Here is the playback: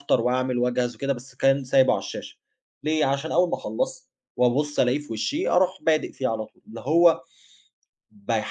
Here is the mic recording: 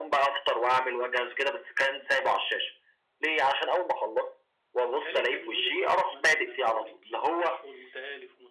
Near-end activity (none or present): present